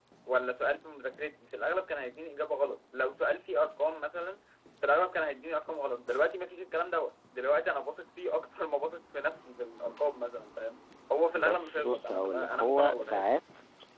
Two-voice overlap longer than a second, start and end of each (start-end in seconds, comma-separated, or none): 11.3-13.3